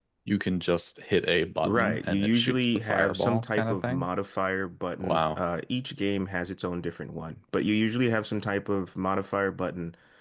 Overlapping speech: Yes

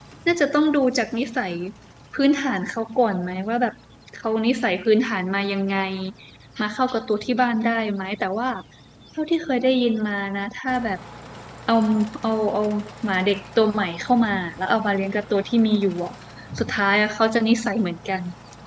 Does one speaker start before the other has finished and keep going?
No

